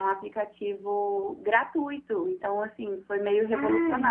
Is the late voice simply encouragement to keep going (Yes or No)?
No